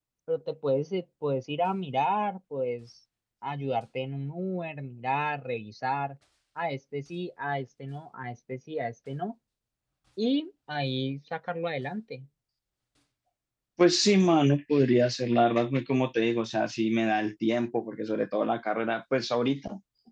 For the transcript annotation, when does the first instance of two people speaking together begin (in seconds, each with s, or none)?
none